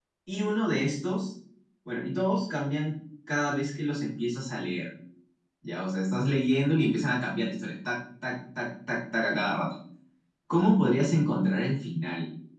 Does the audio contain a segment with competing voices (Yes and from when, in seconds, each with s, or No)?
No